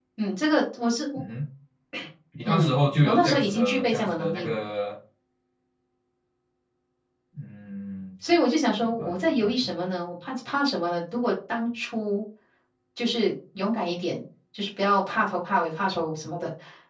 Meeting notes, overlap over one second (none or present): present